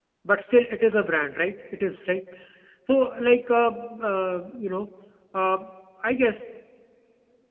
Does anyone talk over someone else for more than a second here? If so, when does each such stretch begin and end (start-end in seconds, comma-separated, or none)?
none